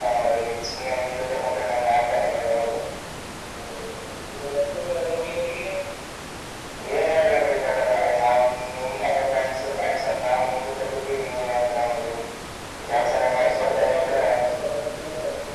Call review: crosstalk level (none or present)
present